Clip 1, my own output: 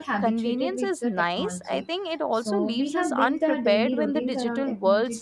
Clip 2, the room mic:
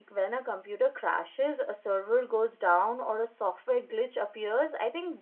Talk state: user only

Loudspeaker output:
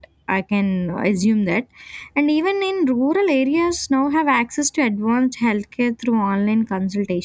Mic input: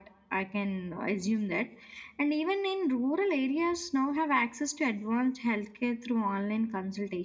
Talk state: echo only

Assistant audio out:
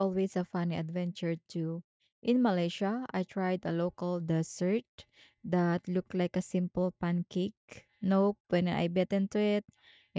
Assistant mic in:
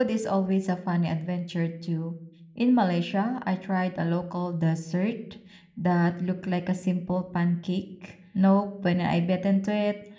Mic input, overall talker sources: echo only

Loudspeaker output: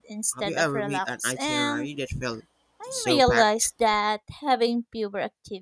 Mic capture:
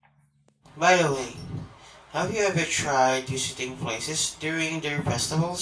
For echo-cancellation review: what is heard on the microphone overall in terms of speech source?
user only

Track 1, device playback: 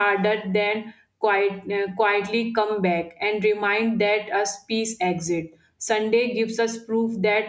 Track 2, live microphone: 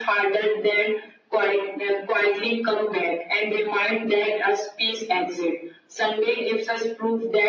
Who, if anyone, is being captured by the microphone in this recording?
echo only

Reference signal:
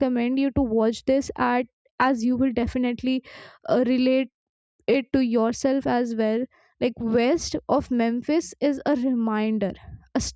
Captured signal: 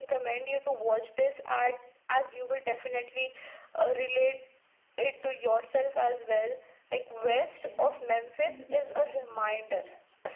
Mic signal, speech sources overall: both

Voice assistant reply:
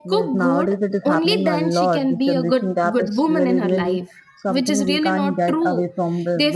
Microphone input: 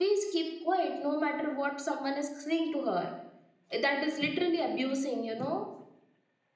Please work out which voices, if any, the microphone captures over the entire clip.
user only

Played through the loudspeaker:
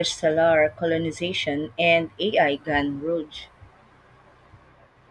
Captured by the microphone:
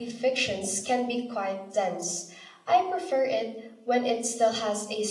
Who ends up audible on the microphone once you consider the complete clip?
user only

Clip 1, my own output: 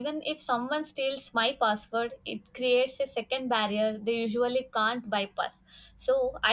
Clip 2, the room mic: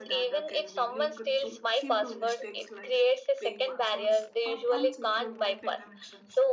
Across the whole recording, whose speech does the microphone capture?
both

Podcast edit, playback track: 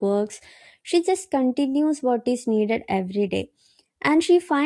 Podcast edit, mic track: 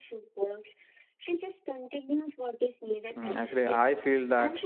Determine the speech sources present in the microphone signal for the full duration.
both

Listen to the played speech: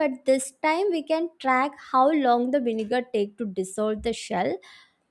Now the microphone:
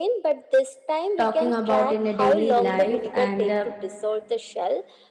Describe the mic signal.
both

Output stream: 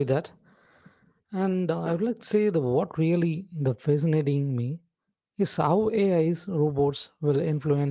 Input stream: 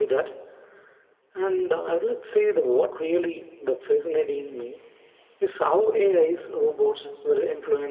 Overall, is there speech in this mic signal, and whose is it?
echo only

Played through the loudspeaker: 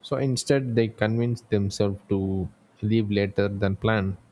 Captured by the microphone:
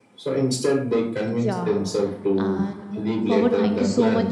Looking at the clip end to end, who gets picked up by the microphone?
both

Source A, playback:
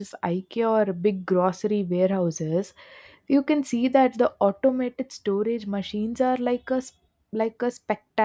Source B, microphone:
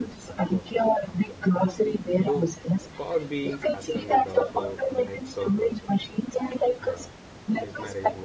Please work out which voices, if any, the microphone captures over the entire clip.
both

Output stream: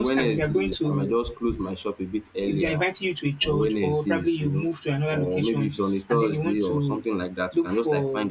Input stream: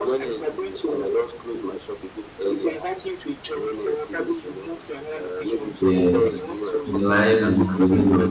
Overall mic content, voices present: both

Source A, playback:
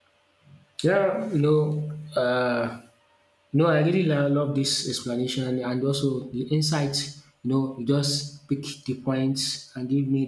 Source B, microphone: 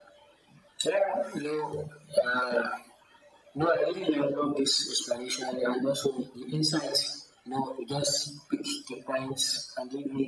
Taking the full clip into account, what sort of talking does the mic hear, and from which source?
echo only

